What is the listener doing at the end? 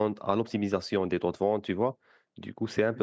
listening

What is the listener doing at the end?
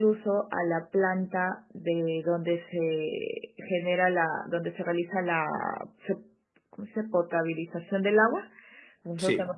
listening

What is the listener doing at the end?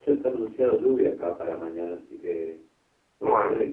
listening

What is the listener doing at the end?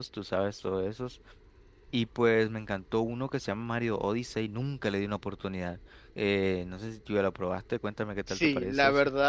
taking over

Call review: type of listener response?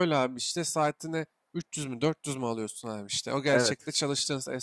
listening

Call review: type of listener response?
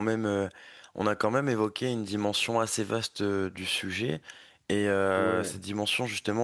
listening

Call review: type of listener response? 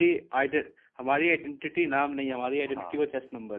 taking over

